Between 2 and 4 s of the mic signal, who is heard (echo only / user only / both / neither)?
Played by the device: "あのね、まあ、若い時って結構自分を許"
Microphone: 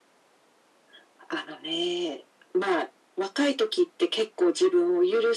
echo only